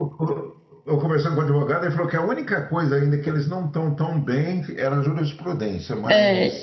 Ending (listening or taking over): taking over